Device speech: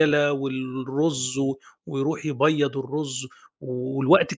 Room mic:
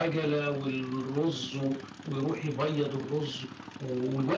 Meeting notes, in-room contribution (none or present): none